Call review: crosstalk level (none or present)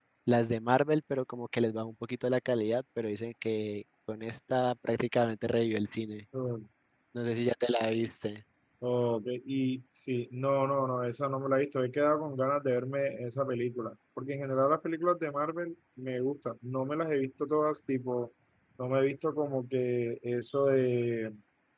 none